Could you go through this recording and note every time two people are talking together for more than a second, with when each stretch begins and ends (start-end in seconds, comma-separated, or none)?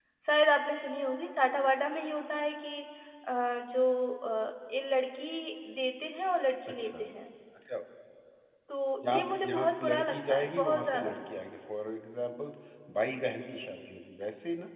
9.0-11.1